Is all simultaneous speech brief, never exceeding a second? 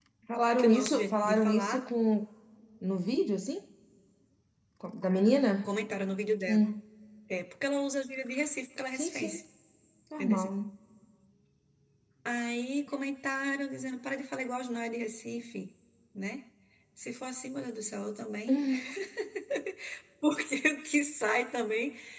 No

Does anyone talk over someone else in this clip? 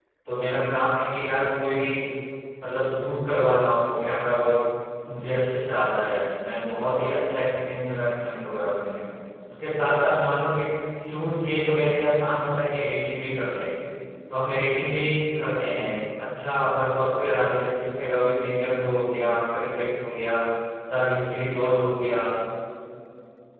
No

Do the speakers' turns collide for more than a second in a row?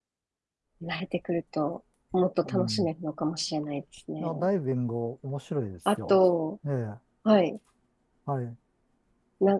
No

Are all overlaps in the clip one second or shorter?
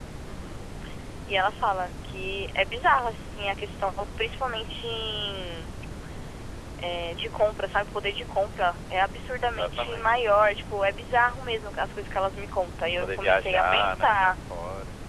No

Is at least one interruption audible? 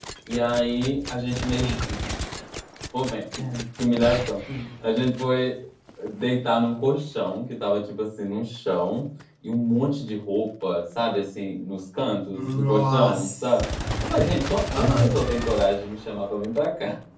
Yes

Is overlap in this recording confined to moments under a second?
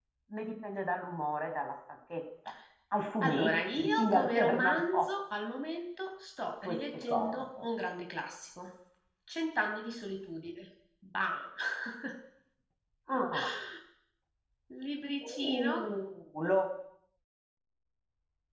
No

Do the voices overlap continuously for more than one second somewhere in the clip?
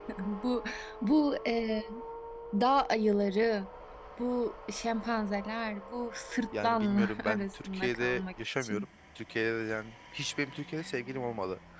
Yes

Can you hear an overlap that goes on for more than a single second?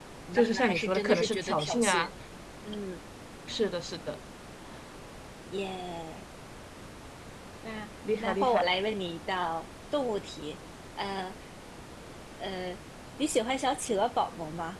Yes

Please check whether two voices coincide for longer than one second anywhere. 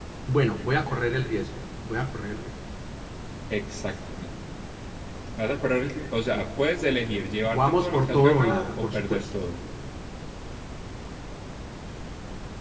Yes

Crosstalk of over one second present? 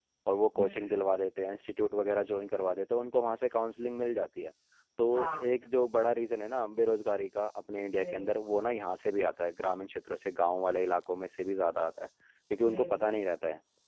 No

